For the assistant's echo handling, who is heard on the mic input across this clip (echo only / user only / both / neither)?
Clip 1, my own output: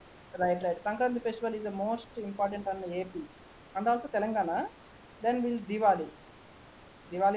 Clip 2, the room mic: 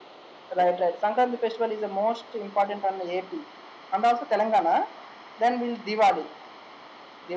echo only